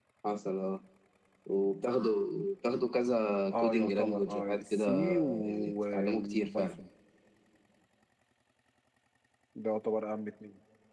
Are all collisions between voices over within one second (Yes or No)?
No